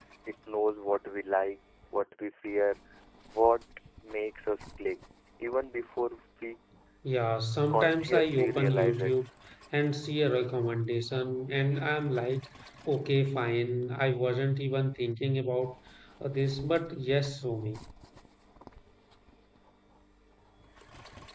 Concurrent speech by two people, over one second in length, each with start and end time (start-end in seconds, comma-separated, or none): 7.7-9.1